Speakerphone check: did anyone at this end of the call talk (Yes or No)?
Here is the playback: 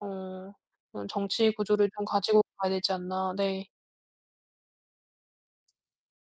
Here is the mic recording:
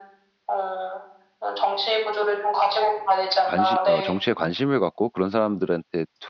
Yes